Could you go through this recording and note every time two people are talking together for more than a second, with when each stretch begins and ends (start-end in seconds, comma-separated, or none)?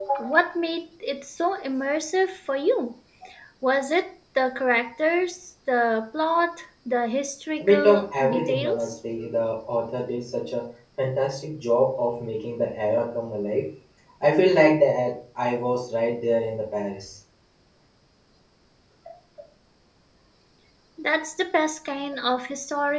7.6-8.9